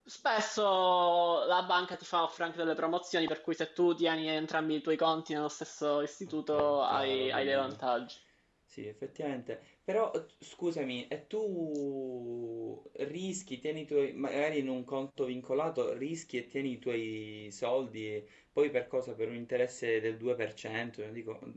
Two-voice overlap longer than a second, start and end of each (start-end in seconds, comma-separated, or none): 6.5-7.8